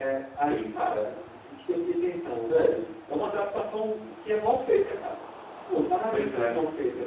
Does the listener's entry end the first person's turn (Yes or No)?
No